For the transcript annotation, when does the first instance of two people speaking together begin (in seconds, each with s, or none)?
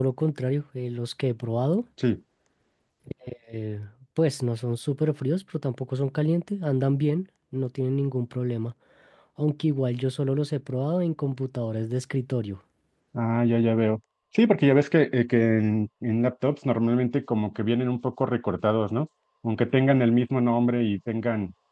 none